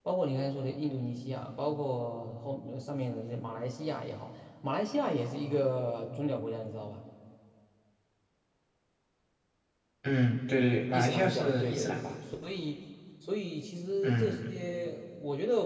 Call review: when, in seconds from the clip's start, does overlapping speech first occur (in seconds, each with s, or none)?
10.9 s